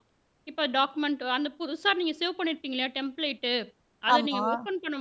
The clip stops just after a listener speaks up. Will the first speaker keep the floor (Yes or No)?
Yes